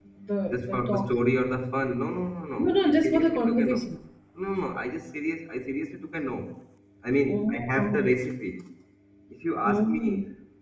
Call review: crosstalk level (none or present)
present